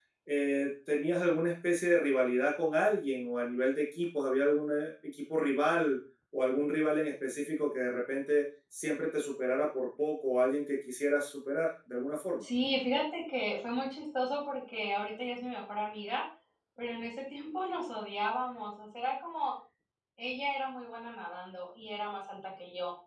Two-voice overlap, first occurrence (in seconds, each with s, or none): none